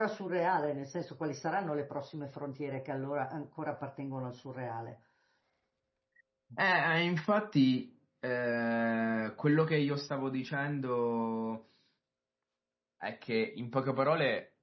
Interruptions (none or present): none